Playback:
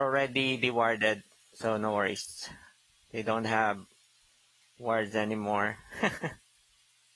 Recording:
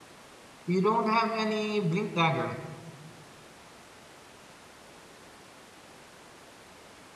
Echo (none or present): none